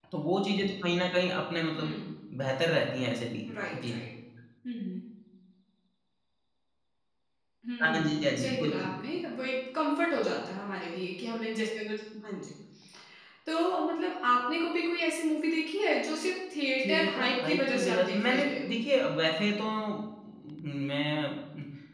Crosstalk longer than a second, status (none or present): present